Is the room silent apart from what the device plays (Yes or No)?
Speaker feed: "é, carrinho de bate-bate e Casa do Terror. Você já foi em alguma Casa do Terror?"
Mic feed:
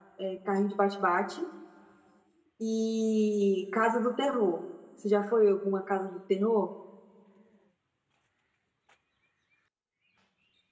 Yes